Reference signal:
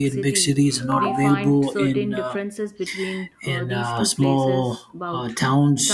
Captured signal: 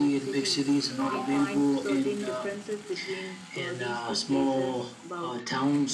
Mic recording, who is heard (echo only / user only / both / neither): echo only